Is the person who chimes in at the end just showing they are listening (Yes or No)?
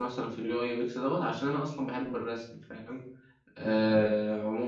Yes